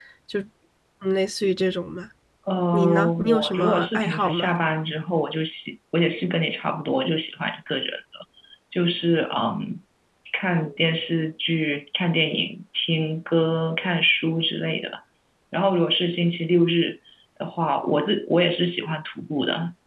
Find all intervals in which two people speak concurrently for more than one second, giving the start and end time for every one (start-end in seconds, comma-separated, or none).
2.7-4.5